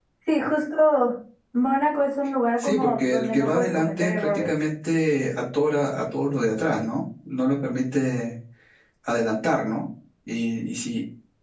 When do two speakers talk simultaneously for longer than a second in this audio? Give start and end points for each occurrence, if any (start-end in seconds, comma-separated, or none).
2.6-4.5